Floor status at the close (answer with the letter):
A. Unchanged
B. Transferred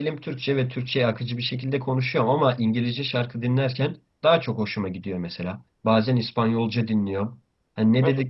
A